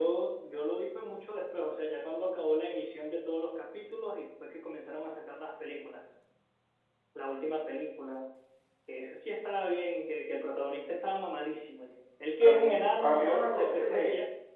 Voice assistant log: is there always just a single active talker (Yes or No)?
No